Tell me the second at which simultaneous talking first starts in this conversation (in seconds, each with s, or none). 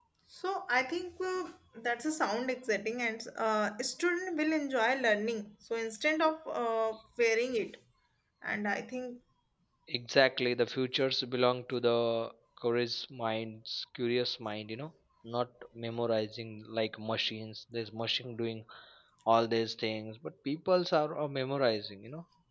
none